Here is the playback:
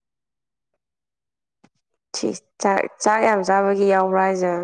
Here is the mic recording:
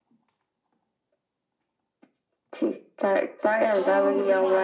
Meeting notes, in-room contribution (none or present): present